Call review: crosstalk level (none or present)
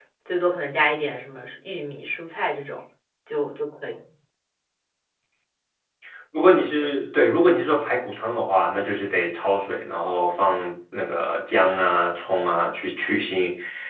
none